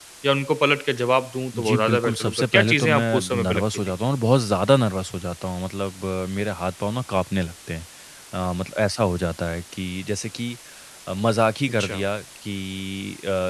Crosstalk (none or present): present